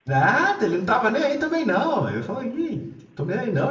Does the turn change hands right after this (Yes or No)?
No